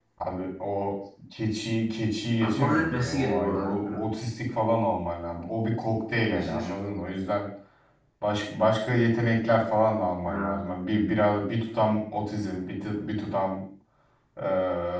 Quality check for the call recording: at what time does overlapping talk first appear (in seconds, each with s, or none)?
2.4 s